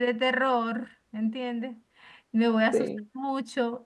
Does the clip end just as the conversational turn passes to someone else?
No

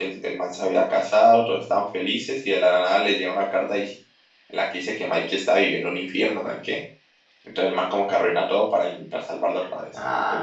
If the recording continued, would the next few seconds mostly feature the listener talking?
Yes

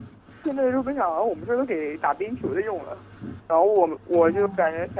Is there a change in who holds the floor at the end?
No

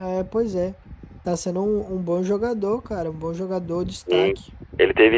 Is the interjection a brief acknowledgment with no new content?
No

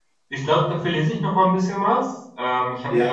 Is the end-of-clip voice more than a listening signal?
No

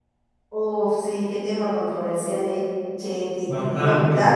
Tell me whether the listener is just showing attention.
Yes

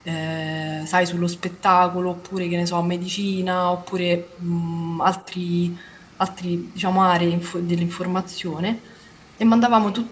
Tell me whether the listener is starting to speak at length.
No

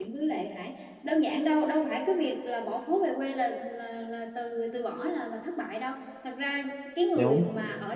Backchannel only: Yes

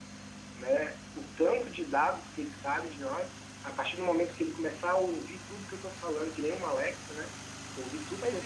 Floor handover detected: Yes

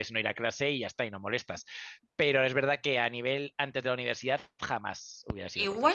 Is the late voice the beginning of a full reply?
Yes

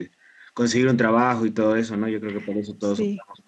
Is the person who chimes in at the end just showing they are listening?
Yes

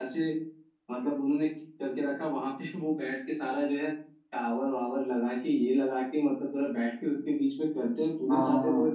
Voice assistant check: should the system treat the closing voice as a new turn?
No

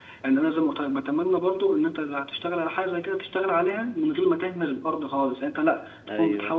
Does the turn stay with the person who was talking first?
Yes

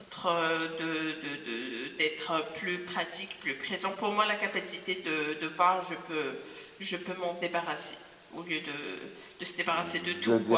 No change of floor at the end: No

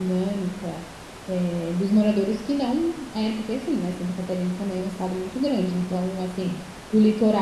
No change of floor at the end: Yes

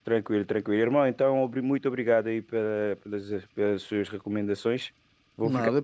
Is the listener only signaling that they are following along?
Yes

